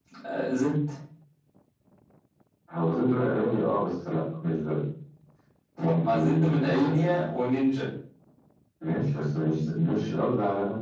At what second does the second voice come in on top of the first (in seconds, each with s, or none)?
5.8 s